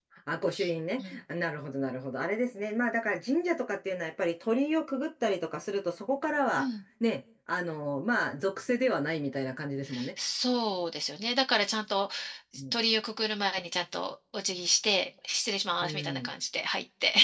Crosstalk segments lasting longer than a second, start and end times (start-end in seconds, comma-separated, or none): none